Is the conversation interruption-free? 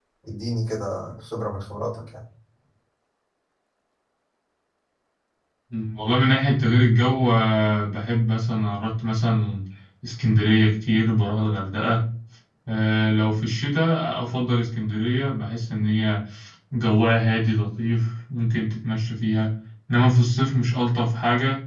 Yes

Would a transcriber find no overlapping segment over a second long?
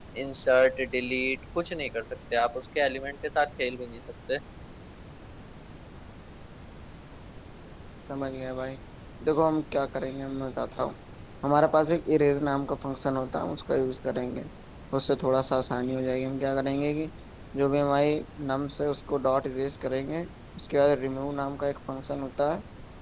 Yes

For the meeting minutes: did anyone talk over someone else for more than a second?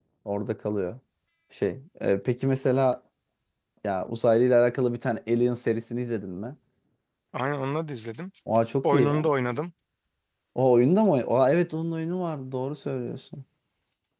No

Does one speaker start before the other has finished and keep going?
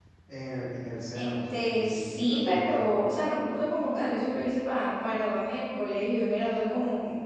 Yes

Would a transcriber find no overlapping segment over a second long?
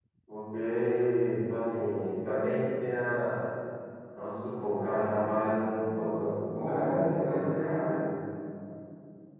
No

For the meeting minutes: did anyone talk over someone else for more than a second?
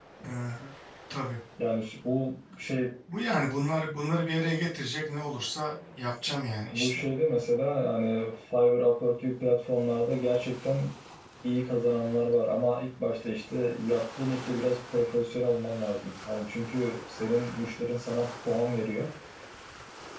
No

